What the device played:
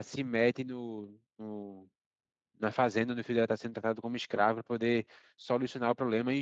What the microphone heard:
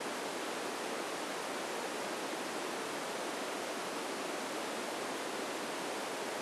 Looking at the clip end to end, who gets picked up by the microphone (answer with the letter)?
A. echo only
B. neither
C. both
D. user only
B